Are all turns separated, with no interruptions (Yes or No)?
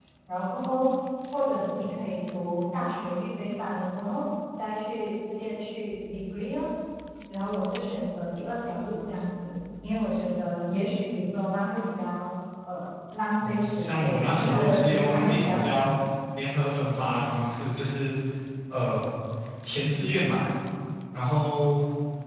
No